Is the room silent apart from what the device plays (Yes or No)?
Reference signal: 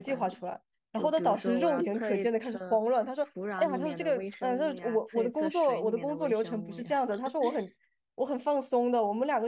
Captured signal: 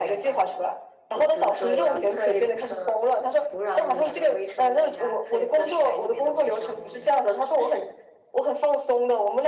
Yes